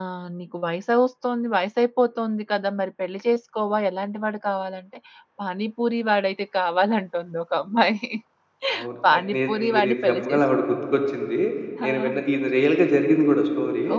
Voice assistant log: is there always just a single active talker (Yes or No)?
No